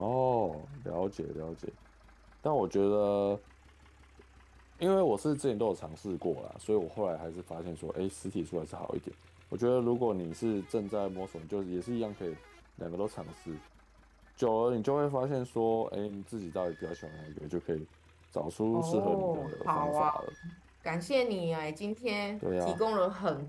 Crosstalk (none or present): present